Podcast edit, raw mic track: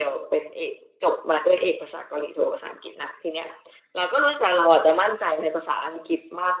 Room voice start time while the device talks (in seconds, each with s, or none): none